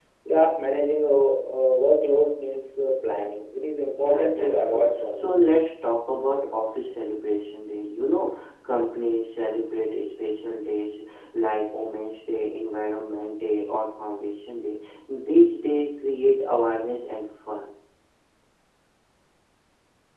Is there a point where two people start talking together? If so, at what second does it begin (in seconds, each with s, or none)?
4.0 s